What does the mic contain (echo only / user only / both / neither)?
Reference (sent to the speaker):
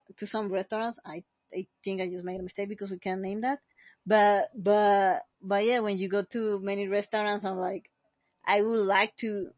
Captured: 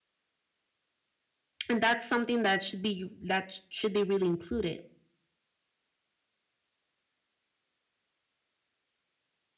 user only